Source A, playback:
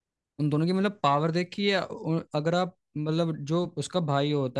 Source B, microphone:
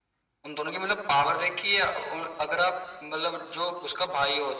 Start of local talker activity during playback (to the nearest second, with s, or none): none